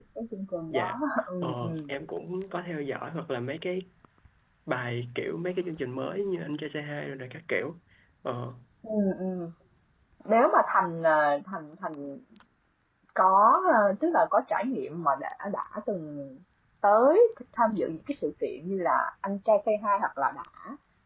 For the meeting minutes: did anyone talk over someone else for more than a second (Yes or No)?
No